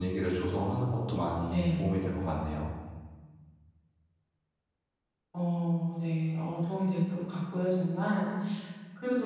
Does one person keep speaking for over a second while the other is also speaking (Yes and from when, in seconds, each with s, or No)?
No